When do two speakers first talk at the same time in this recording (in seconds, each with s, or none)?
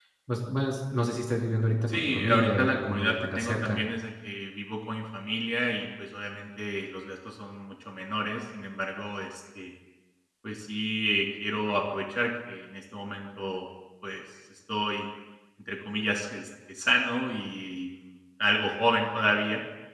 1.9 s